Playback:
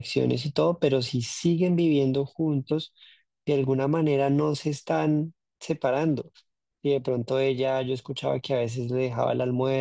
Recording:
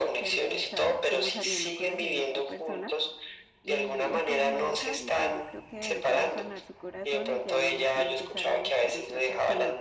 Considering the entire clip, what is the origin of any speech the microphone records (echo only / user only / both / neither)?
both